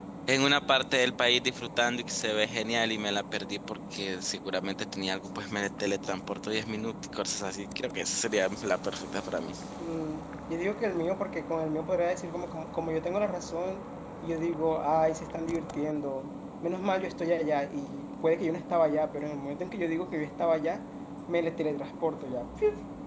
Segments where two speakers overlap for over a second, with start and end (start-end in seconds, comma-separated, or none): none